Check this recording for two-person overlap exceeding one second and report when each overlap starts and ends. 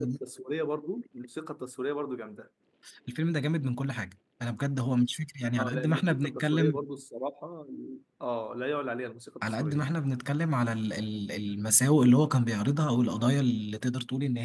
5.6-6.8

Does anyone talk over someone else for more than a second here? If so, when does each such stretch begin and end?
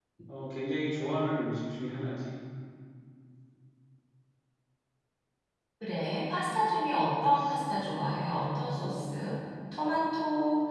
none

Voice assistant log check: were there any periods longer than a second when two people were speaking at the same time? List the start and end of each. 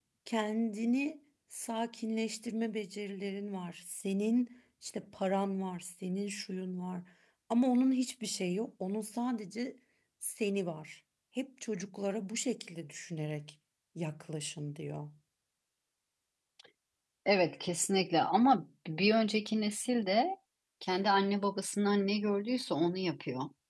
none

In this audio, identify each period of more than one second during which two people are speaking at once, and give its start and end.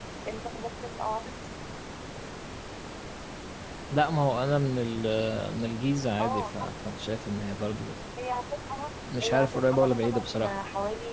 9.2-10.5

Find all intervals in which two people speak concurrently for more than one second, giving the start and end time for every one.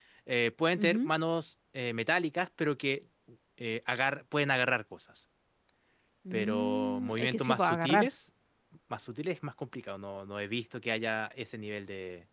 6.3-8.1

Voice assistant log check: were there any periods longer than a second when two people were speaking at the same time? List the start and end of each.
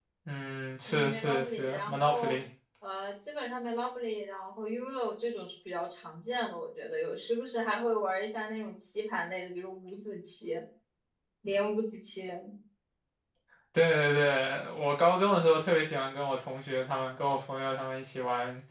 0.9-2.4

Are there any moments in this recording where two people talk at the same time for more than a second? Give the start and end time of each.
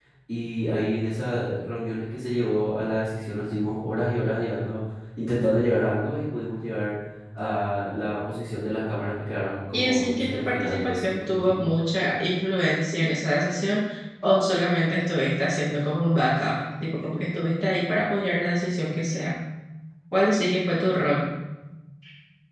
9.7-11.6

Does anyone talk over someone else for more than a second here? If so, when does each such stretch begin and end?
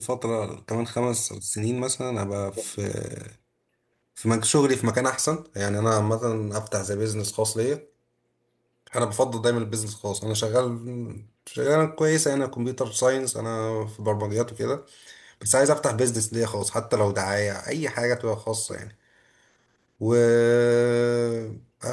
none

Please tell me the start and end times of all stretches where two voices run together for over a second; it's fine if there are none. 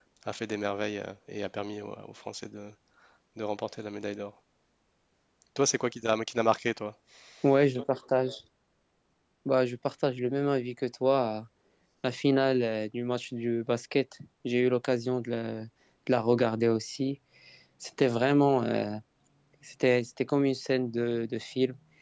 none

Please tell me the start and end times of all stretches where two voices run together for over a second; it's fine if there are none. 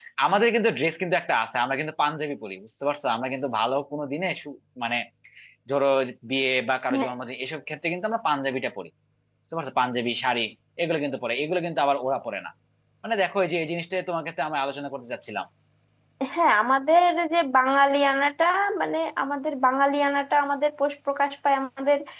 none

